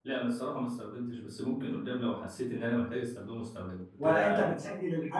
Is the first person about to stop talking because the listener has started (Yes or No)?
Yes